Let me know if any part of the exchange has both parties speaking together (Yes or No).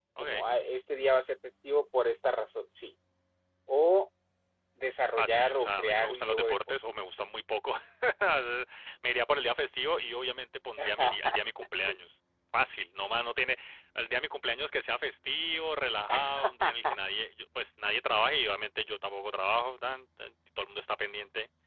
Yes